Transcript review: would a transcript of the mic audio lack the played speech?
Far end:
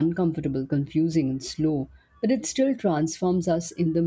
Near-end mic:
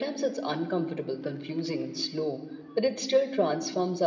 No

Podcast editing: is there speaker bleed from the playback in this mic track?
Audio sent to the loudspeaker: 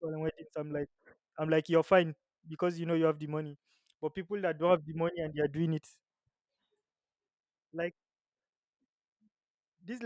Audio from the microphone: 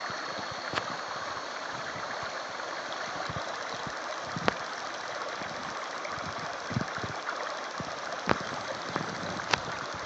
No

